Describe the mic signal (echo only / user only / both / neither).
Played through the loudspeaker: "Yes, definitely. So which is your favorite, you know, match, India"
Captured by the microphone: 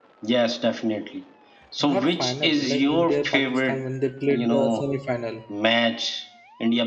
both